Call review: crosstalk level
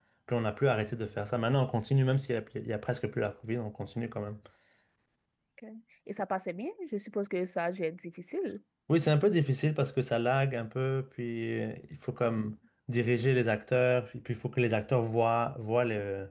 none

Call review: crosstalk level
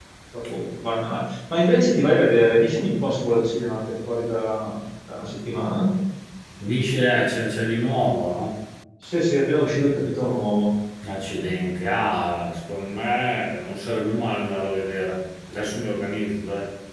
none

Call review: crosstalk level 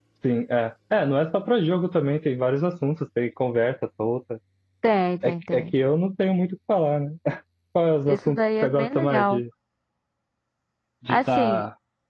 present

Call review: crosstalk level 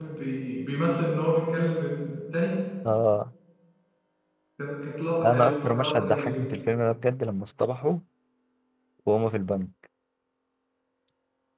present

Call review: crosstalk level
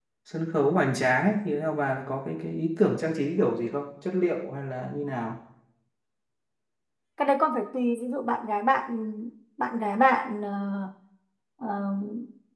none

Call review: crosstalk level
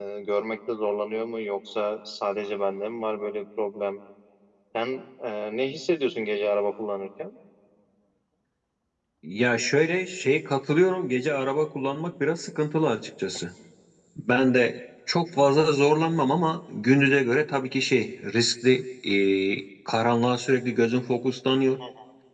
none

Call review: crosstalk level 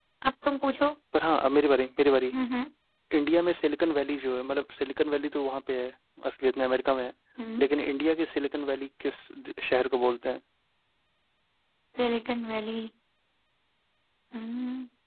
none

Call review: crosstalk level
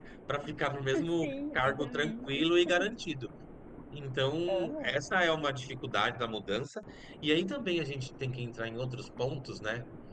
present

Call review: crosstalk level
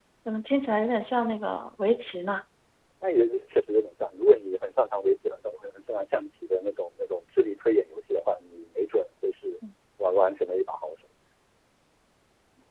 none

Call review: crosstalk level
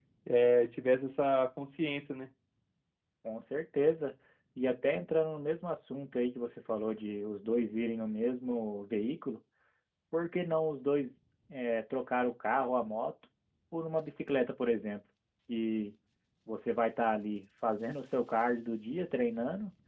none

